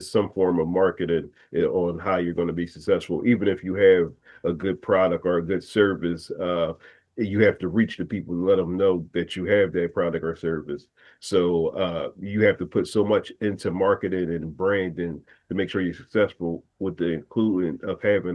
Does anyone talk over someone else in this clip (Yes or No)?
No